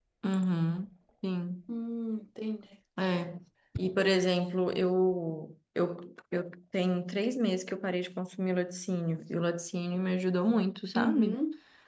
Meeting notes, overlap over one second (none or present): none